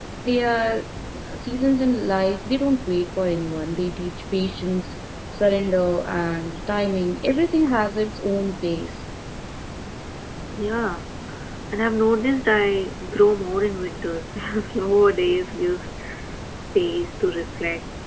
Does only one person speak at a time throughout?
Yes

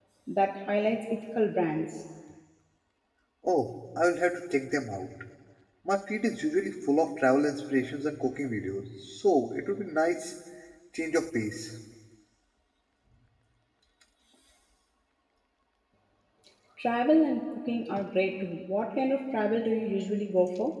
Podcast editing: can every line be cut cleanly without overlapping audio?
Yes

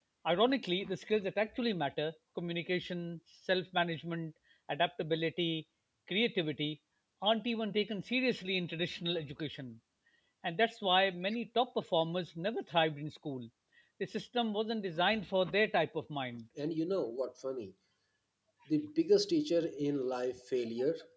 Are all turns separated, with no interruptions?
Yes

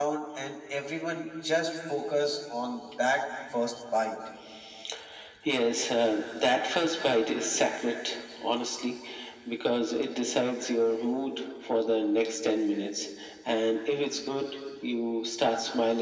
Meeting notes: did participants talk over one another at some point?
No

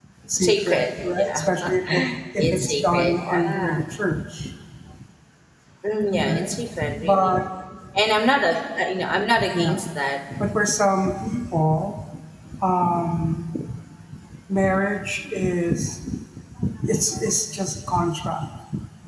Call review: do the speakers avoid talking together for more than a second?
No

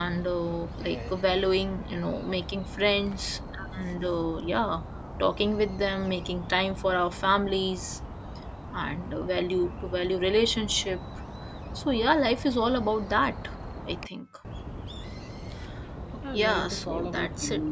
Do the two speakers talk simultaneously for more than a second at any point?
Yes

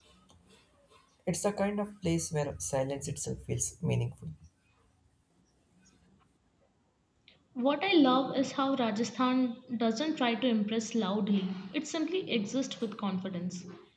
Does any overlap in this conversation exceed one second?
No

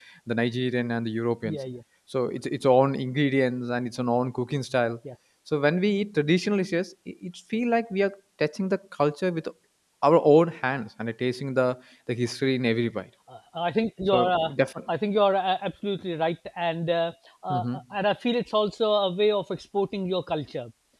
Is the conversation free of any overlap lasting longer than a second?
Yes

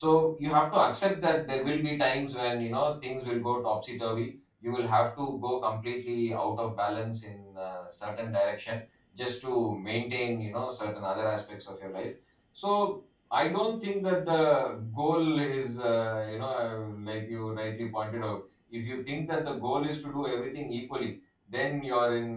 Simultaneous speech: No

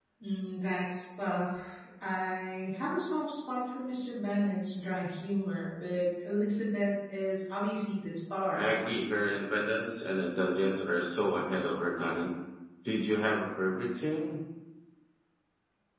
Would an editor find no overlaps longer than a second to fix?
Yes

